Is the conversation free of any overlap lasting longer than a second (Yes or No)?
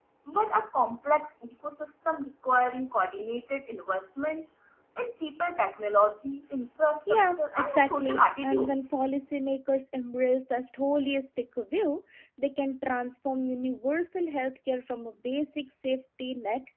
No